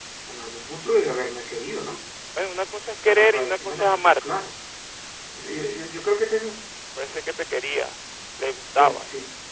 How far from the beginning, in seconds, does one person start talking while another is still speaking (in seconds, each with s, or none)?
3.1 s